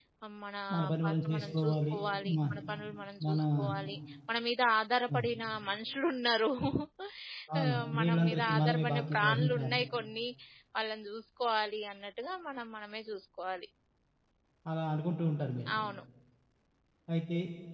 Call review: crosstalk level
present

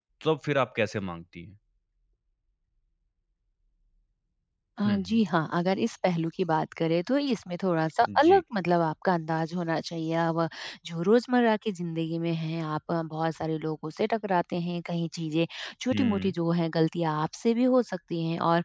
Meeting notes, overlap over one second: none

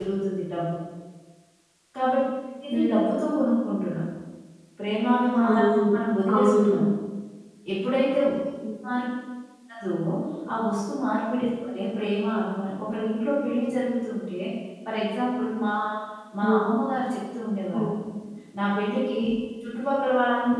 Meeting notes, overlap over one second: none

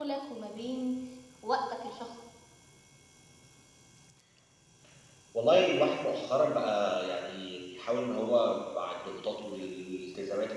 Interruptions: none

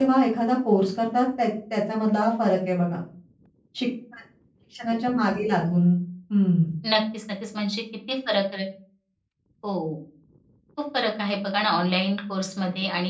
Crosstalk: none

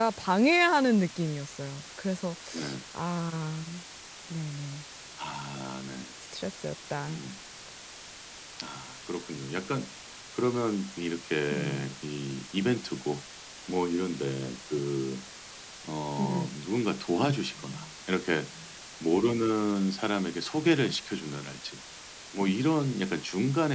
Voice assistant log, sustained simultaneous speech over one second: none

